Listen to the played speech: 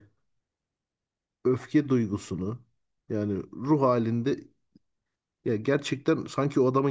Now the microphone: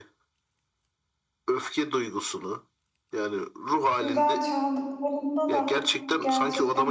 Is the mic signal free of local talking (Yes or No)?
No